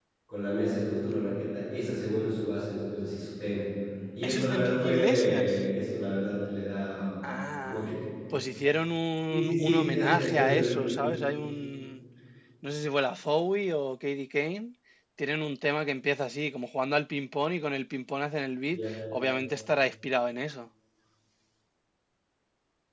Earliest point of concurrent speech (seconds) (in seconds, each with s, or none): 4.2 s